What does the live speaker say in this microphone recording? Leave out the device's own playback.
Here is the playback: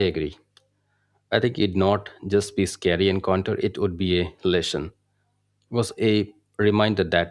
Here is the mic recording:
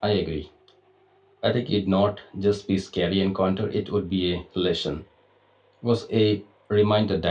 none

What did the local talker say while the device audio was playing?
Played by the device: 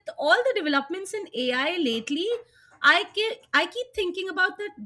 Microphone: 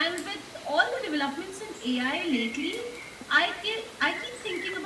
none

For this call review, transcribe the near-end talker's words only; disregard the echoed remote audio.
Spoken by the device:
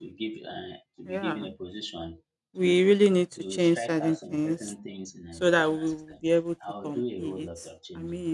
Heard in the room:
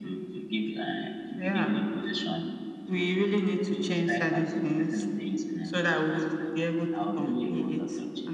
none

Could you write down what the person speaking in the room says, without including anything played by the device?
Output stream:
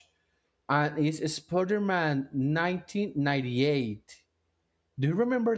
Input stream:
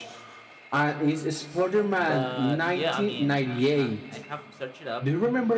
but yeah i mean i i, I have searched it up

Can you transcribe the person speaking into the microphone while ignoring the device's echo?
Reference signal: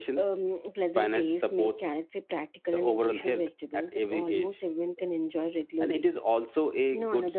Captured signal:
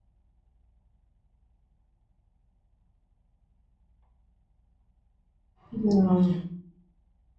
Yeah.

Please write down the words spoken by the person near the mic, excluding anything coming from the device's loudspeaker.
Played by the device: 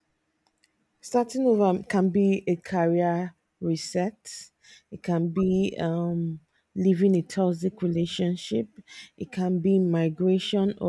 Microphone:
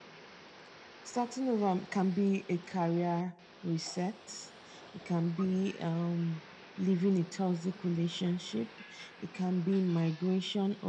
none

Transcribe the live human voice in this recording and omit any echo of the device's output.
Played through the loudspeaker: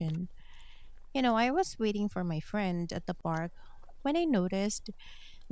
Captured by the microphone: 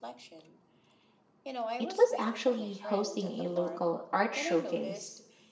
it was actually hosting a local art showcase.

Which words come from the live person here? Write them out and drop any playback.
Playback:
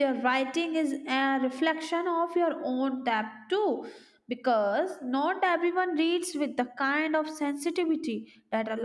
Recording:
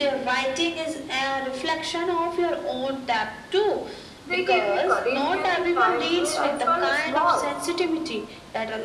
they gave me courage during times where I felt small,

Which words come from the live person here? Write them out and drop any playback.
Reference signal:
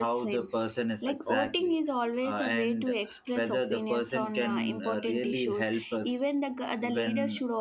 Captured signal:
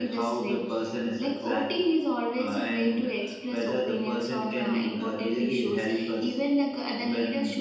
none

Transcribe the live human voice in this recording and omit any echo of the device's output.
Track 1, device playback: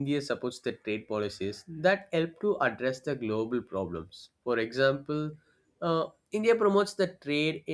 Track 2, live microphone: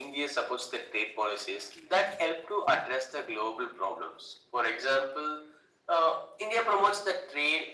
none

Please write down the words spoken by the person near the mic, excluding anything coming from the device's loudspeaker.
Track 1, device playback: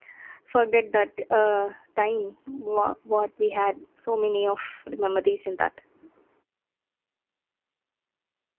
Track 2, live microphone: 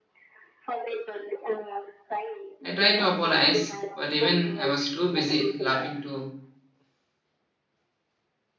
I tried to apologize, but even I was too busy laughing to

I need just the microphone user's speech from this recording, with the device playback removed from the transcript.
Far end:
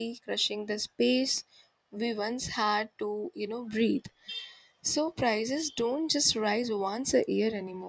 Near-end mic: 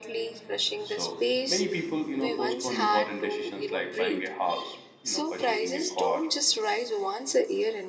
so many people you know postpone important decisions like buying a house you know purchasing a car

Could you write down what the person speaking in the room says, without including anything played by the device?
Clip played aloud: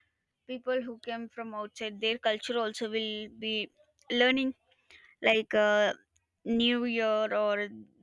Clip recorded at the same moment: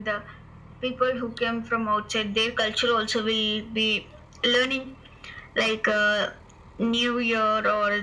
none

